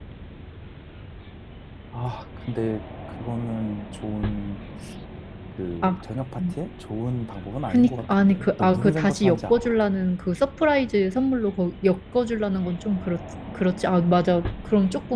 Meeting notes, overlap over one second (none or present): present